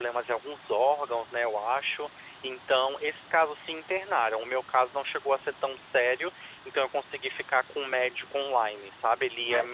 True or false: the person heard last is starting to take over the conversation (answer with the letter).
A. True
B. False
A